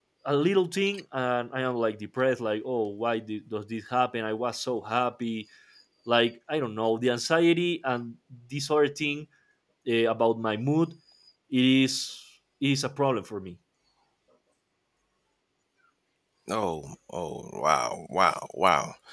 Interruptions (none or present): none